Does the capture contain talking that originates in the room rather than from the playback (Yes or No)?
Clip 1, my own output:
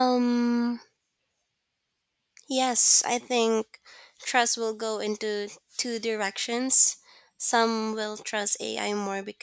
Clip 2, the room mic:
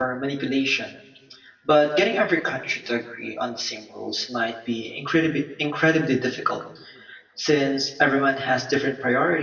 Yes